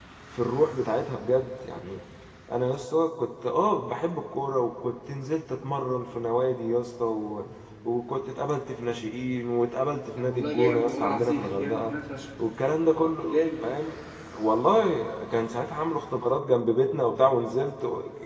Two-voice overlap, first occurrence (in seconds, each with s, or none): 10.2 s